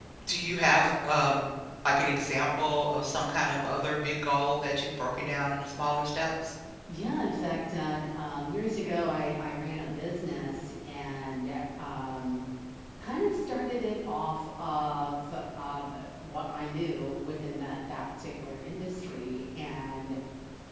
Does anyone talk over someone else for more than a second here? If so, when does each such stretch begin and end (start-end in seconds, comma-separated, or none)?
none